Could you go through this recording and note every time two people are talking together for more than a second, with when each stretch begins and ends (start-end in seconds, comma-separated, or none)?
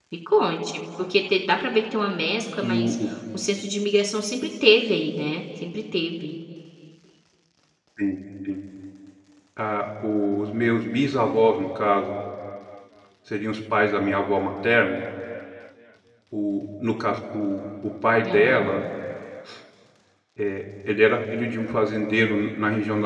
none